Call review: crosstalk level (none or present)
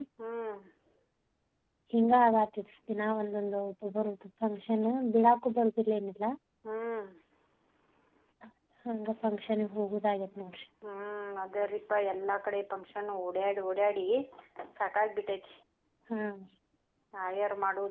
none